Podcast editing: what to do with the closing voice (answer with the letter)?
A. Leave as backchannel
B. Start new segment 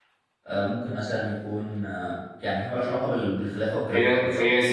B